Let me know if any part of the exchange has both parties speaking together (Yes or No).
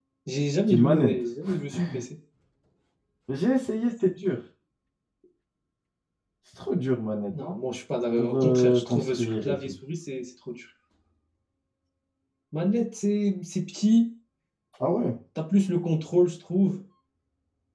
Yes